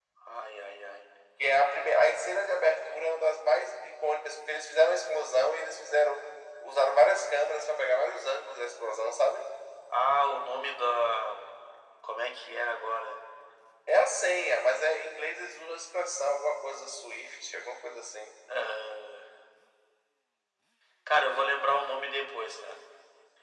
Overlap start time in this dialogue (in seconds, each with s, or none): none